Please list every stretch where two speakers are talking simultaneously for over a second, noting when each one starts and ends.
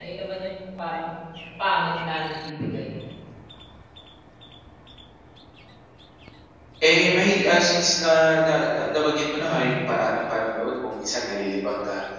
none

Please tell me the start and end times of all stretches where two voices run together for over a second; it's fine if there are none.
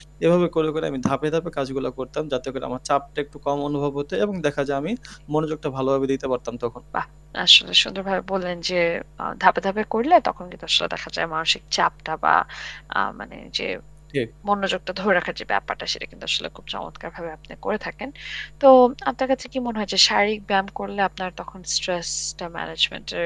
none

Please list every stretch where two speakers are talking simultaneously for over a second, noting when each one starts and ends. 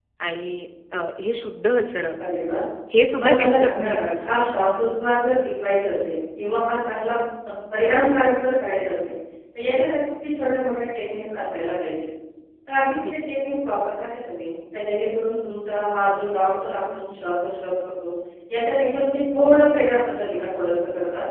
3.1-4.5

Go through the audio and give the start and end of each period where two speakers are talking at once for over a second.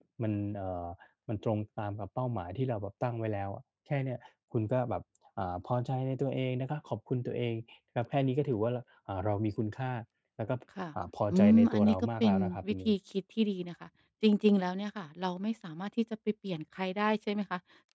11.3-12.9

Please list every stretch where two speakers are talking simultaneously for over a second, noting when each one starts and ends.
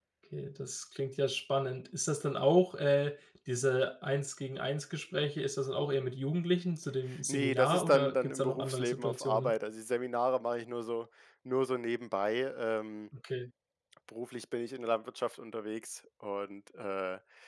7.3-9.5

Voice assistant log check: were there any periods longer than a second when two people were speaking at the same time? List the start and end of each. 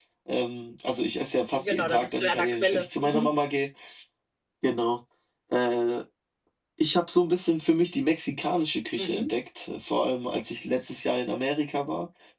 1.5-3.3

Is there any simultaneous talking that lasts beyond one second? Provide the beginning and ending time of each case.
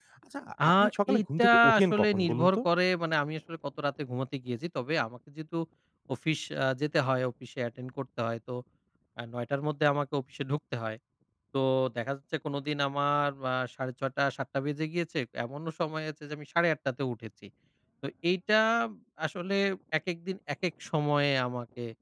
1.1-2.6

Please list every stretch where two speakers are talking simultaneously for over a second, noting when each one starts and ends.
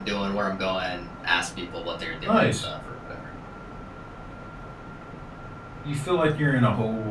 none

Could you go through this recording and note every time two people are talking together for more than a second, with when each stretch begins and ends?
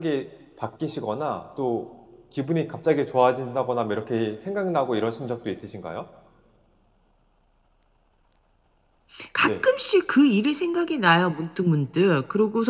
none

